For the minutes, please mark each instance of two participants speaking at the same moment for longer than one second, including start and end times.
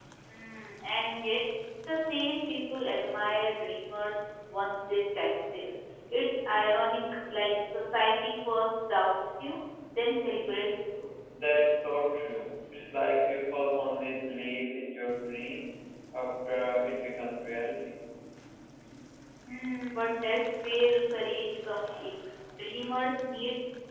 none

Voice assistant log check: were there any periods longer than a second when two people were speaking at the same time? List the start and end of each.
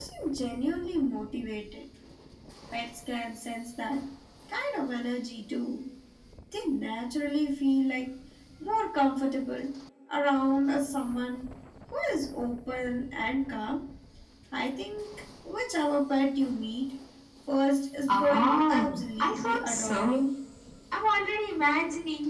18.1-20.3

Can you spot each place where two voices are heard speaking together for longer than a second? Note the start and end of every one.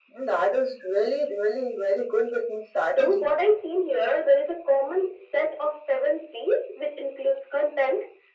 none

